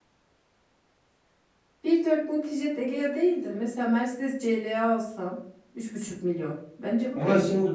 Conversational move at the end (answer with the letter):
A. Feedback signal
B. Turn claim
B